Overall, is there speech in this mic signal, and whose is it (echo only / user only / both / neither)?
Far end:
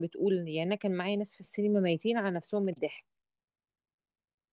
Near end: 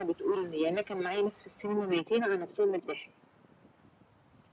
echo only